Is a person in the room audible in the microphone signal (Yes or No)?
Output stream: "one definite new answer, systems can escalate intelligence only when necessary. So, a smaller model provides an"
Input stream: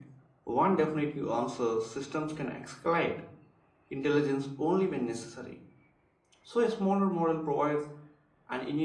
No